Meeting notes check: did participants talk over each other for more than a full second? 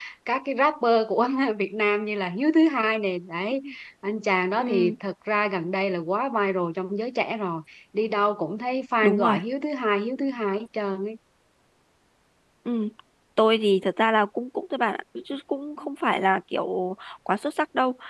No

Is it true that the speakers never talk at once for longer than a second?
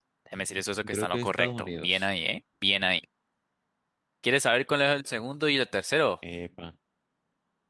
No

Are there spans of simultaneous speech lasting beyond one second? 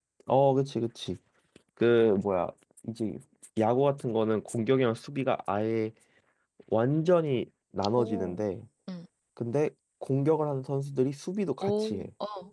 No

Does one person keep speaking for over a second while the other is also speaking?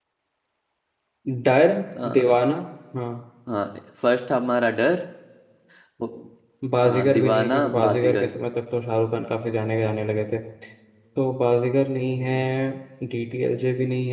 Yes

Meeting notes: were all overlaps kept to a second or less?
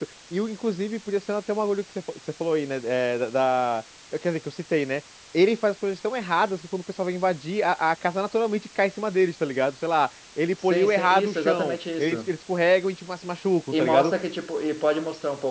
No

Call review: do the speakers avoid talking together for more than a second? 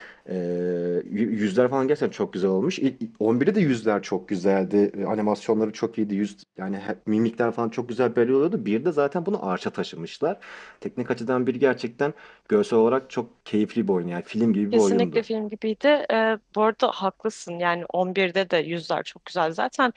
Yes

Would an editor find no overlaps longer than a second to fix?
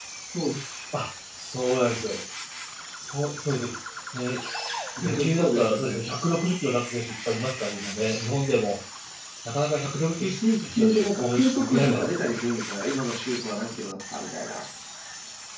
No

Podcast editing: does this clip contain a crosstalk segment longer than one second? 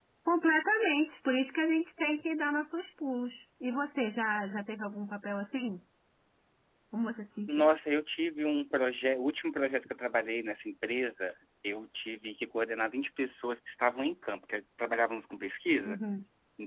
No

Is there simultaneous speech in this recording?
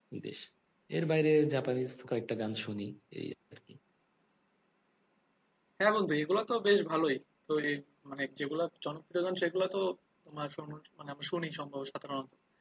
No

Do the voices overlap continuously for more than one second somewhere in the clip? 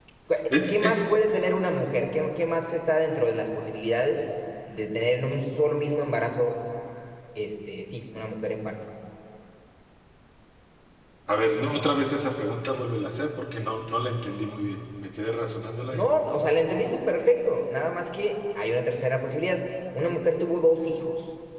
No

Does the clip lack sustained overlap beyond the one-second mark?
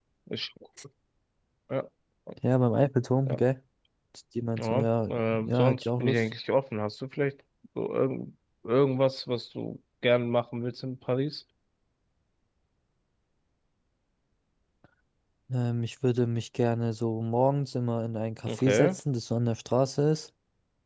No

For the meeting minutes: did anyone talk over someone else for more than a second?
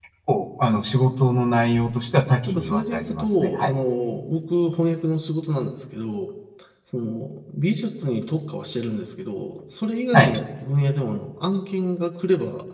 Yes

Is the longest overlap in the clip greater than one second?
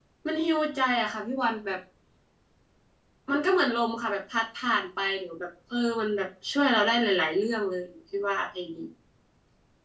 No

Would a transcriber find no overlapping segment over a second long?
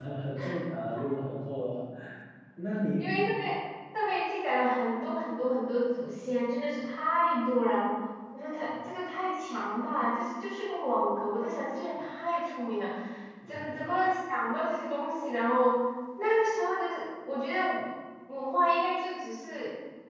Yes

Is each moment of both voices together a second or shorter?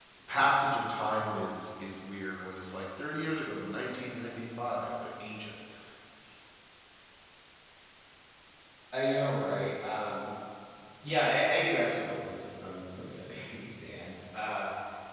Yes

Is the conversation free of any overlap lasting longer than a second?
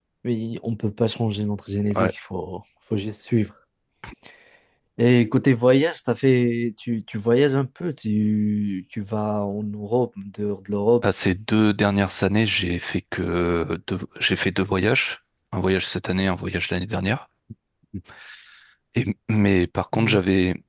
Yes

